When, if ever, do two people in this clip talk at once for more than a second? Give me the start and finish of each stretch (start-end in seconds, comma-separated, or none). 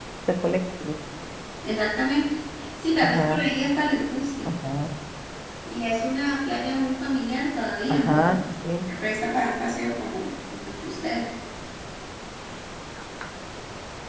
none